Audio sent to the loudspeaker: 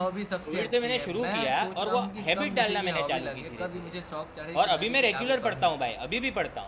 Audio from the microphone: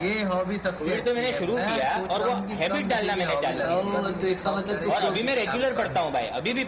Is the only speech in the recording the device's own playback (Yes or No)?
No